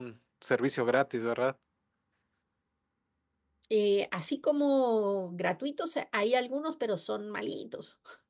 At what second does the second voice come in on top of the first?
none

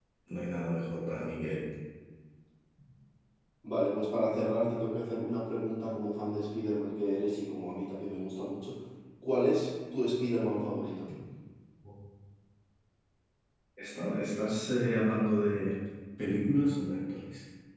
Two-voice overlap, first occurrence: none

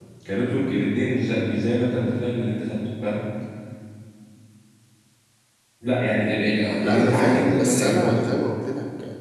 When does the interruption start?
6.8 s

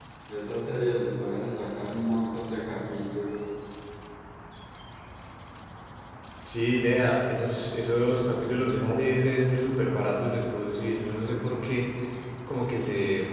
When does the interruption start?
none

